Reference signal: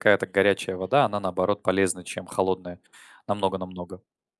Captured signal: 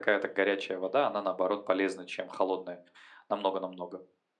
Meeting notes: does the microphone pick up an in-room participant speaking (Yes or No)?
No